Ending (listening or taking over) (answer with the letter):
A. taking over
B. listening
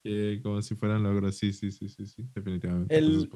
A